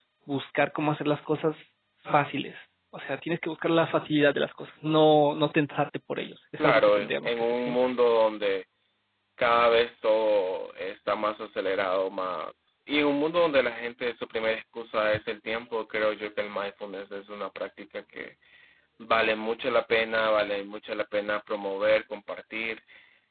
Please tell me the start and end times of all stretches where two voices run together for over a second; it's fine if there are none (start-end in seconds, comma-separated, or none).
6.6-7.9